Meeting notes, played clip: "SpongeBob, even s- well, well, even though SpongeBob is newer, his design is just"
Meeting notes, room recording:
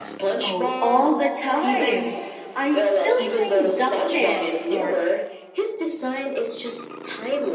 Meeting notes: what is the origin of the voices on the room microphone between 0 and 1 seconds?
both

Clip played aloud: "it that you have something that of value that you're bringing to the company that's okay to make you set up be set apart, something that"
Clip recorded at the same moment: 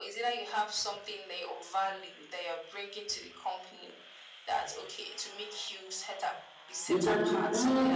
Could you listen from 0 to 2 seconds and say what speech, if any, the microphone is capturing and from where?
echo only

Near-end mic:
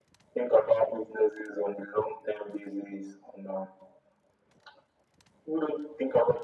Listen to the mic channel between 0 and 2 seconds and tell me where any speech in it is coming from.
echo only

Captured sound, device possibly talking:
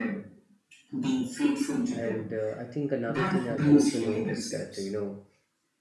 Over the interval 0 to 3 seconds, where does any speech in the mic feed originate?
both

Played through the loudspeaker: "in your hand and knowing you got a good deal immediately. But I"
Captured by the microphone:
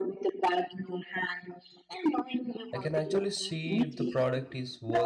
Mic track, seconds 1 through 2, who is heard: echo only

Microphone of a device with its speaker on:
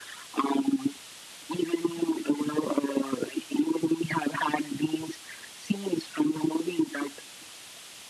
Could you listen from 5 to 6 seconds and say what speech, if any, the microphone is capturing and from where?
echo only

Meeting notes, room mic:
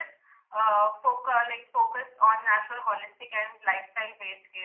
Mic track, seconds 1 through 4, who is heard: echo only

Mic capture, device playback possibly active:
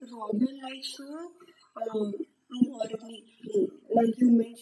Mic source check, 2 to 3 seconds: echo only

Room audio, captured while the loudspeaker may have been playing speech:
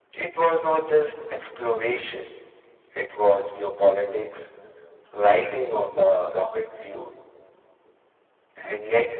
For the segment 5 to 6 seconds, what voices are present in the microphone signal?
echo only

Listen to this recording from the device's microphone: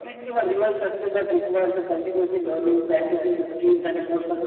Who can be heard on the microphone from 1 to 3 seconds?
echo only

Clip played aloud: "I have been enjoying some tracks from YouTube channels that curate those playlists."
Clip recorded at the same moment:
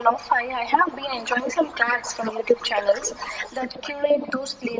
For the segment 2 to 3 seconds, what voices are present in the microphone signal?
echo only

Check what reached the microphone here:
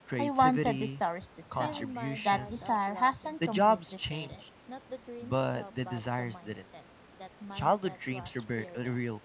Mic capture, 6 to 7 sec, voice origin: both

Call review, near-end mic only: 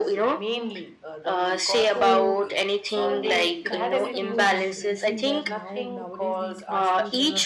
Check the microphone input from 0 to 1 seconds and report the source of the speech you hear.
echo only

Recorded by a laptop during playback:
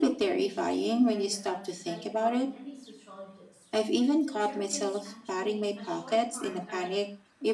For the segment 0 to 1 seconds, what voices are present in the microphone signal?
both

